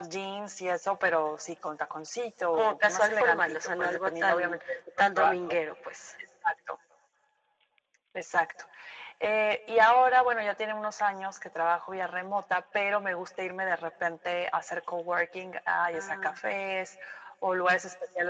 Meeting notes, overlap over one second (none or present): present